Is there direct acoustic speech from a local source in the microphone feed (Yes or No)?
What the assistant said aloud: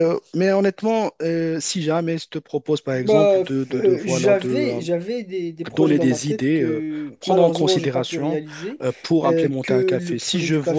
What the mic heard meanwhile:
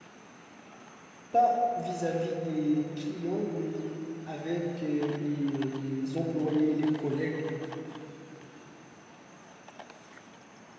Yes